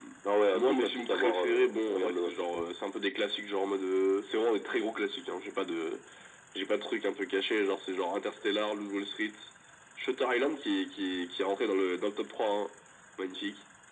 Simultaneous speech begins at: 1 s

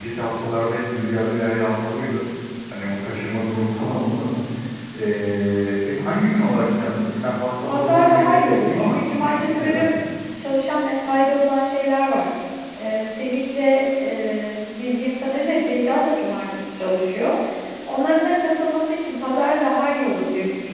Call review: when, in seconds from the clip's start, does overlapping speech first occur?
8 s

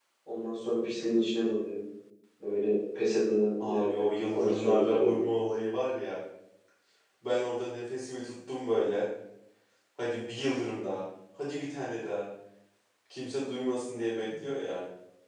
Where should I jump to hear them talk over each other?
4 s

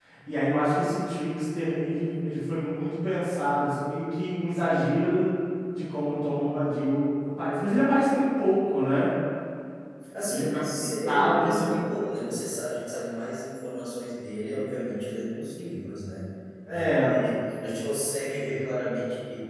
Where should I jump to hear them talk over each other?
10 s

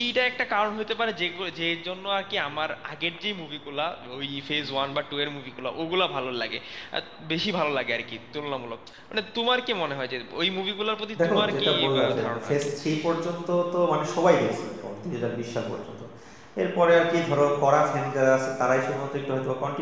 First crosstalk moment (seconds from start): 11 s

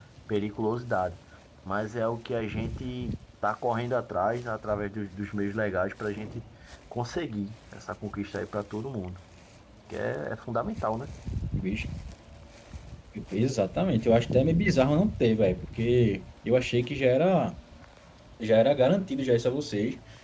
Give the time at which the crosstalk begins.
none

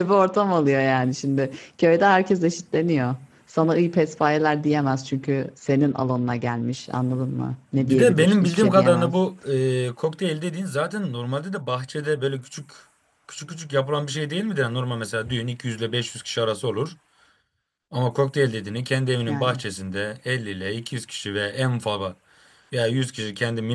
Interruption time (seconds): 8 s

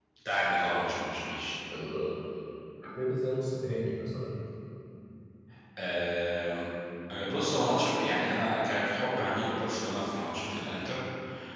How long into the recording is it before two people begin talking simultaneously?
none

